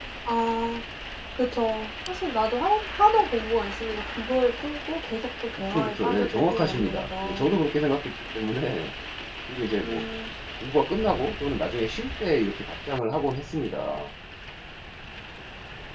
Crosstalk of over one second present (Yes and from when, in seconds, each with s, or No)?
Yes, from 5.7 s